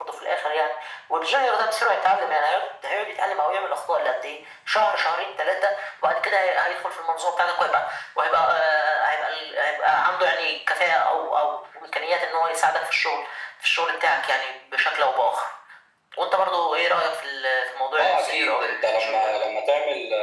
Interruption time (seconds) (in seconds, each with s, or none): 18.0 s